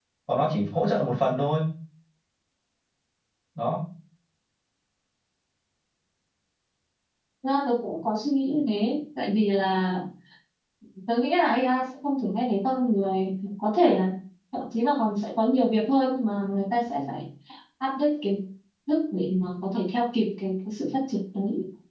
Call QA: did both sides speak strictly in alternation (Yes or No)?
Yes